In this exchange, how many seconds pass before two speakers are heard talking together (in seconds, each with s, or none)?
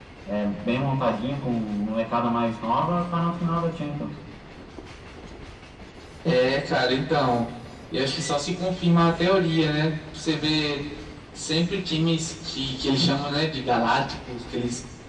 none